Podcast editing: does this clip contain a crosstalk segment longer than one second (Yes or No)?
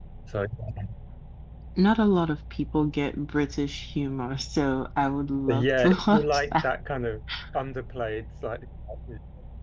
Yes